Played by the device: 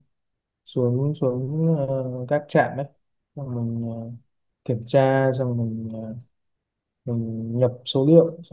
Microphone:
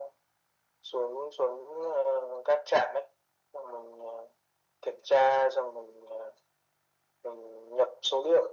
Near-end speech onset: none

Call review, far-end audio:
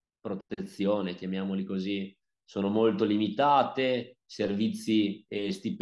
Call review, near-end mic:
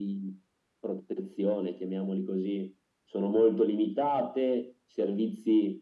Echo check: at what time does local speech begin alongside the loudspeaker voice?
none

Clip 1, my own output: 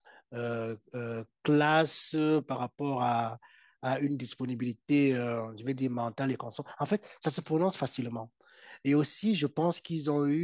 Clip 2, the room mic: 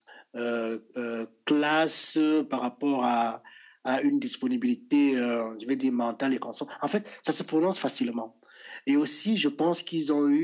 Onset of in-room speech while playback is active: none

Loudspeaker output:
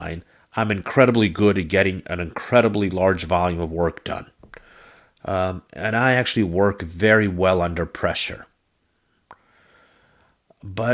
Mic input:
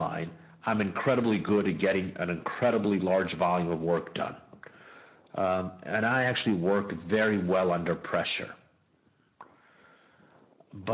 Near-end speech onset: none

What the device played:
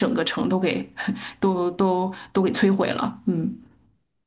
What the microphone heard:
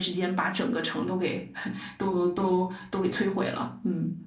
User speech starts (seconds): none

